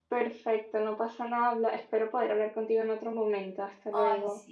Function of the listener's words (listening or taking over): taking over